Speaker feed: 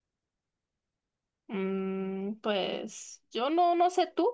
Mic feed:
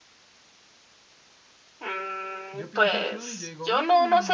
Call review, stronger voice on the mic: echo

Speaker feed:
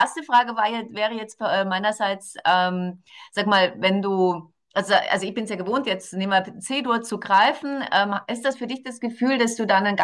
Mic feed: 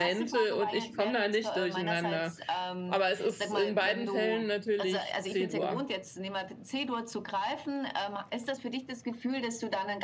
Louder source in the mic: user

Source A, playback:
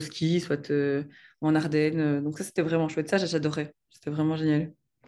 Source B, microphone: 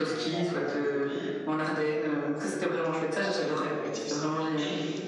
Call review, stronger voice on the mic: echo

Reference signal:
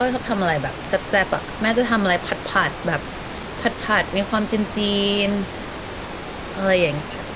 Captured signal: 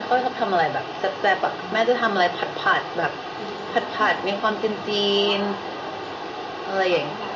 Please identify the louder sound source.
echo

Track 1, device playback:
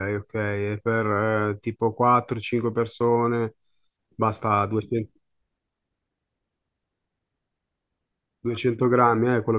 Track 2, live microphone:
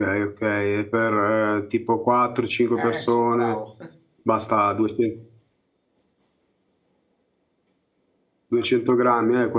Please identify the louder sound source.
echo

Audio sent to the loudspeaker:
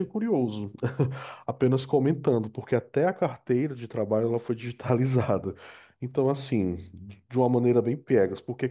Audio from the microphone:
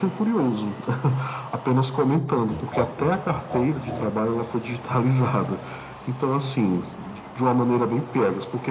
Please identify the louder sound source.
echo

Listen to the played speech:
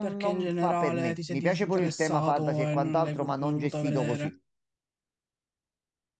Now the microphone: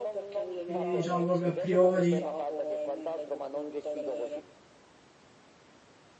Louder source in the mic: user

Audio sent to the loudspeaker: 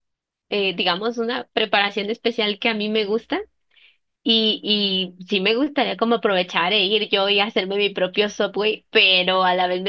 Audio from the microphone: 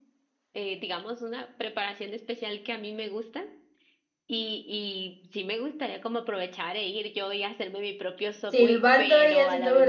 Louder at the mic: user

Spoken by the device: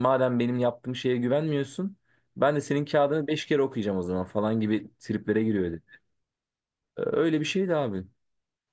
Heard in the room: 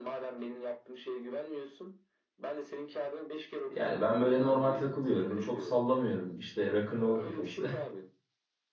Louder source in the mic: user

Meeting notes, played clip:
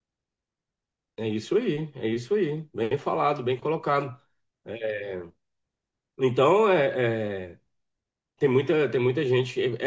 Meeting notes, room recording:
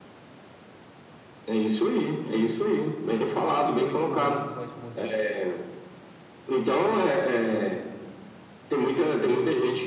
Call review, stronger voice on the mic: echo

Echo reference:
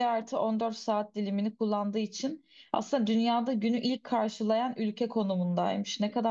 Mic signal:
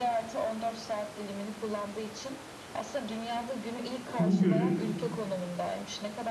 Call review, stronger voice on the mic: user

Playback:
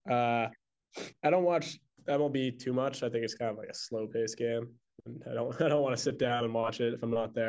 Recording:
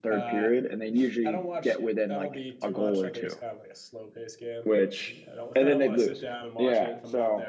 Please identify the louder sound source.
user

